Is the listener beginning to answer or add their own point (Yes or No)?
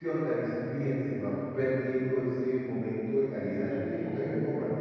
No